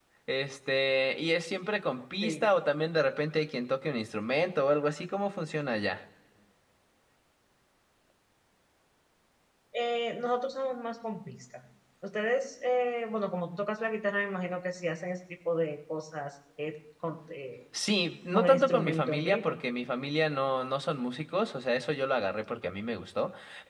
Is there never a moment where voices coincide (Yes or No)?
No